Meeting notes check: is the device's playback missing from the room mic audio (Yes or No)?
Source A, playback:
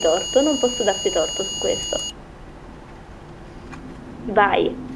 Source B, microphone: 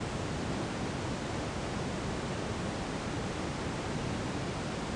Yes